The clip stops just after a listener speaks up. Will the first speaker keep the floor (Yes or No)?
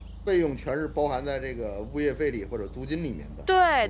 No